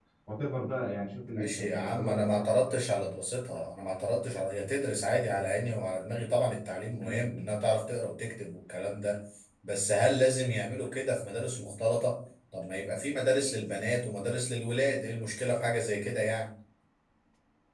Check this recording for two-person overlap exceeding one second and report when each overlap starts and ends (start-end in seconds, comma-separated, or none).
1.3-2.8